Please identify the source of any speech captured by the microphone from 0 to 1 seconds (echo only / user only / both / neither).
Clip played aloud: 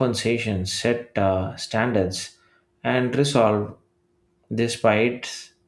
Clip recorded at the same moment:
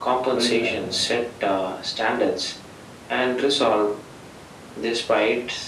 both